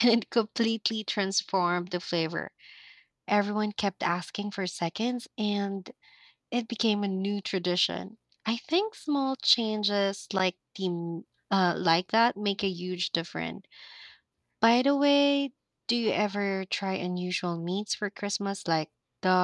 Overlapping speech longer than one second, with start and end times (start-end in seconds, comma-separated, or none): none